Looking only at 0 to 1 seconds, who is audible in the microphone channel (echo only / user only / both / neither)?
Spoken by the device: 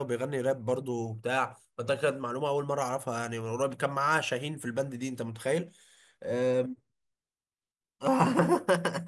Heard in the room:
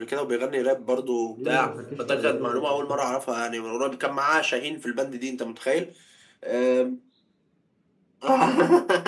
echo only